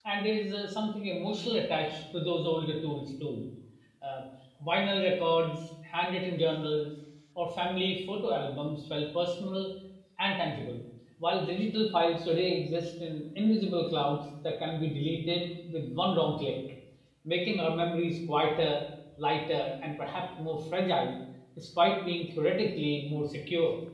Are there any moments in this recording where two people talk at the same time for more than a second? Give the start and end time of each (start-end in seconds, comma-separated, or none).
none